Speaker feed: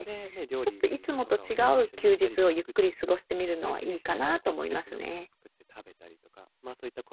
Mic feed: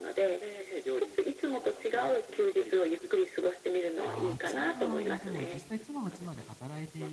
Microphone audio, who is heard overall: both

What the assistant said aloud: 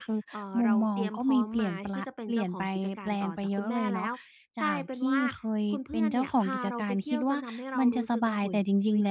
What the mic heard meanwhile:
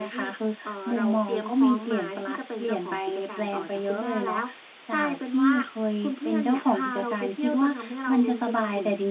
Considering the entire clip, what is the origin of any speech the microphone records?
echo only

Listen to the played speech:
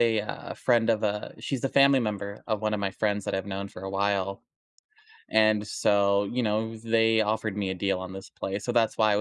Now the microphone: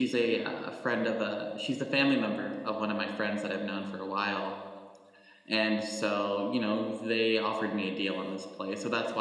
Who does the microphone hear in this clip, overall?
echo only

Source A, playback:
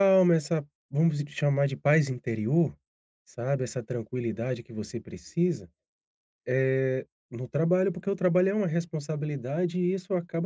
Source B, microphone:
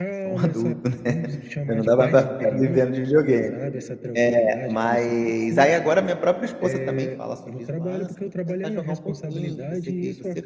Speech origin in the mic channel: both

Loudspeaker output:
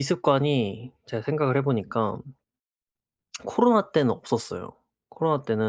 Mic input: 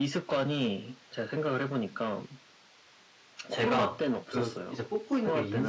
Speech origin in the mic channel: both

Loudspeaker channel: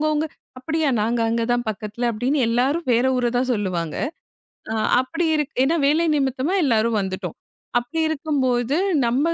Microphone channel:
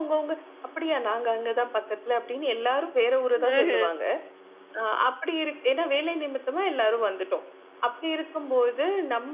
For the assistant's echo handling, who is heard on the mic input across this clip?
both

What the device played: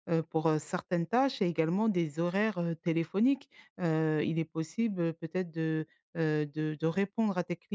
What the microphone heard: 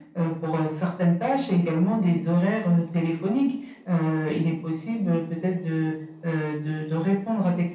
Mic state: echo only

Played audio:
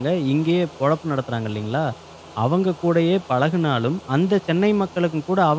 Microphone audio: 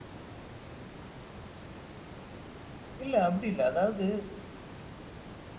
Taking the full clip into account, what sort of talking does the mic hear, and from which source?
user only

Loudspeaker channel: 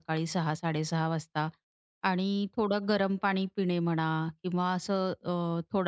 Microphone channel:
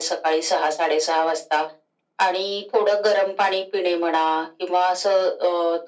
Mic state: echo only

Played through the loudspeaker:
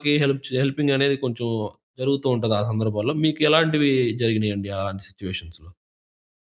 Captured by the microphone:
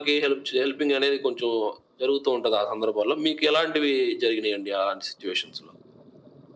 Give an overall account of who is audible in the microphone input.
echo only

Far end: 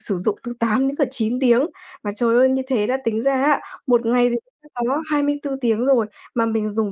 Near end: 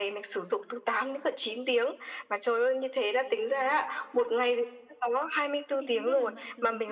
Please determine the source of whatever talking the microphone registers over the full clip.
both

